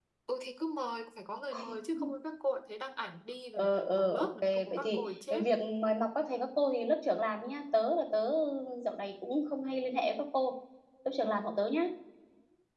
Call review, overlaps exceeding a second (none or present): present